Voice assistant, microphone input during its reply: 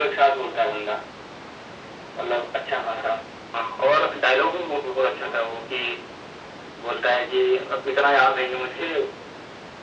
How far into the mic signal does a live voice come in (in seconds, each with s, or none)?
none